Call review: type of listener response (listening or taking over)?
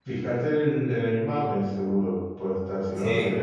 listening